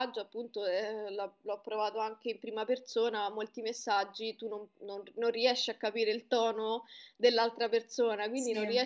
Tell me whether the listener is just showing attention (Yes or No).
Yes